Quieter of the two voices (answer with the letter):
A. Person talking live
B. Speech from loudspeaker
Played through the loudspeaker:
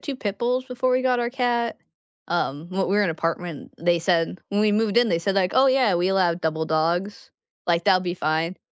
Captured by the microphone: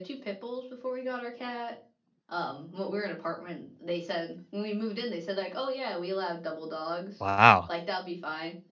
B